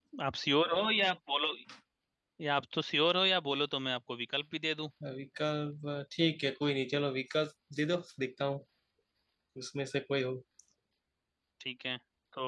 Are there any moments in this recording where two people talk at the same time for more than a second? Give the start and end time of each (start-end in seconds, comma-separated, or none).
none